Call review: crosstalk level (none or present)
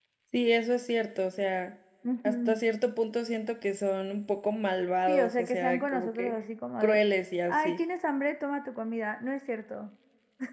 present